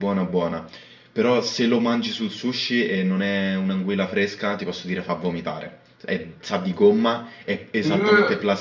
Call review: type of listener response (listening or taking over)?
listening